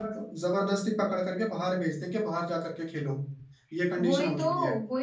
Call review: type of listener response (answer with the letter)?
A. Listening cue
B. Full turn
B